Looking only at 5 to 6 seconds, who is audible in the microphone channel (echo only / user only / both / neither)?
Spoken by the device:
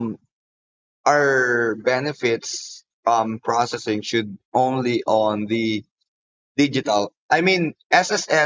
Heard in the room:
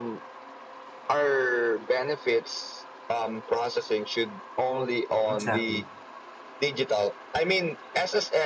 both